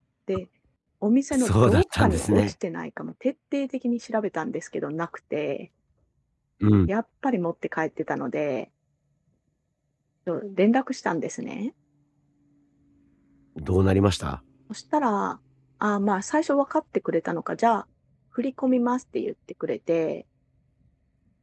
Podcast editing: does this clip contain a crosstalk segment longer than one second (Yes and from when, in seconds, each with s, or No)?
Yes, from 1.3 s